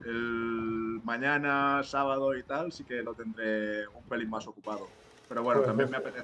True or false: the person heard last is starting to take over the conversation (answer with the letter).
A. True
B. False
B